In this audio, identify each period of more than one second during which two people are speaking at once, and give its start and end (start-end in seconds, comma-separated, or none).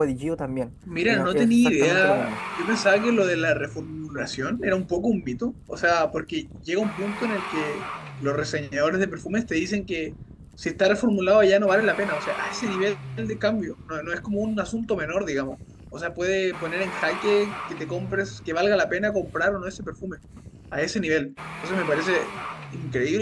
1.1-2.3